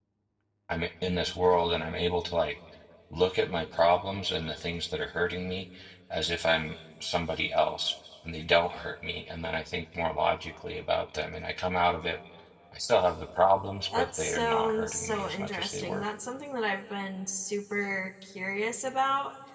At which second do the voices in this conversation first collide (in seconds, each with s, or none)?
13.9 s